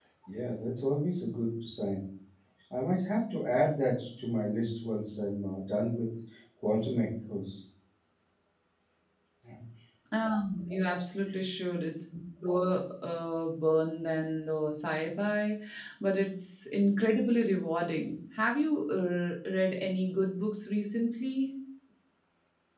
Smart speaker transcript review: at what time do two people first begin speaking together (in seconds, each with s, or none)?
none